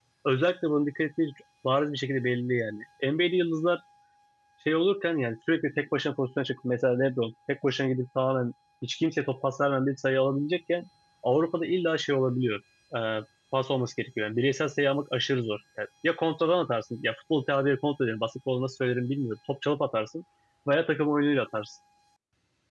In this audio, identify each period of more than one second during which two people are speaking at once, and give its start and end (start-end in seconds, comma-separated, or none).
none